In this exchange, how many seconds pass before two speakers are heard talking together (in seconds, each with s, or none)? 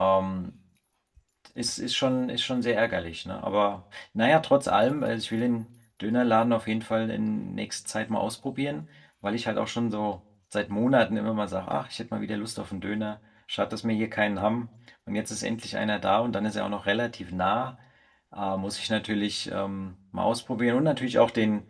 none